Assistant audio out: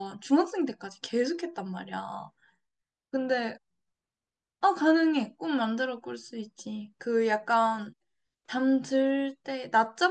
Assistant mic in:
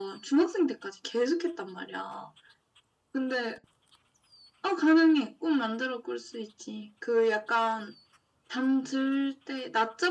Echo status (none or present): present